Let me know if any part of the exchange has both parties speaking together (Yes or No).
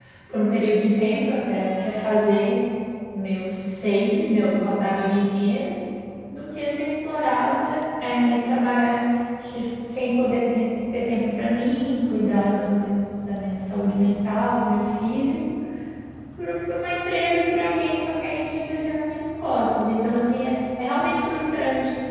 No